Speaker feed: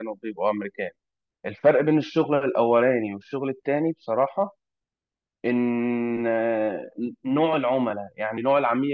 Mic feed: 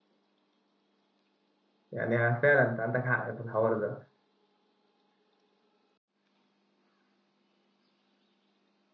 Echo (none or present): none